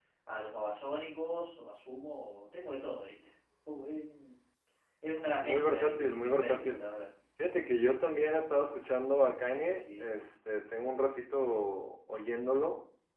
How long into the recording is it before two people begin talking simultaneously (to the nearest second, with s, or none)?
5 s